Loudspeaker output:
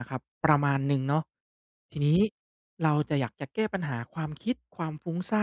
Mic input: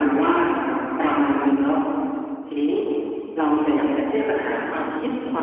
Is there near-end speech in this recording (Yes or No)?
No